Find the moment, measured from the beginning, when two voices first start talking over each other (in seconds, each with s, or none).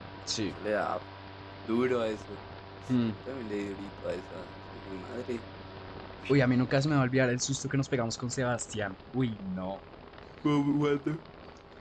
none